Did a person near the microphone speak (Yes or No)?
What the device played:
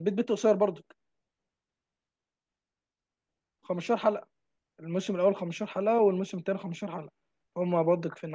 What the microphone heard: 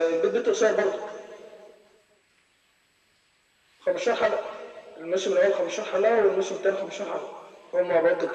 No